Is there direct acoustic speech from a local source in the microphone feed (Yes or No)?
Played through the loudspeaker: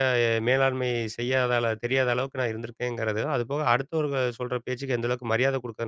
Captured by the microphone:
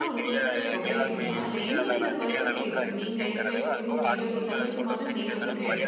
Yes